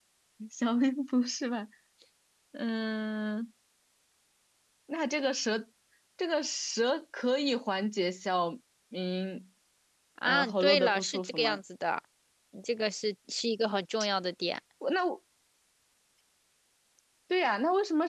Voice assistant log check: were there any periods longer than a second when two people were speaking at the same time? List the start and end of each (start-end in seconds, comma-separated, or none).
10.2-11.6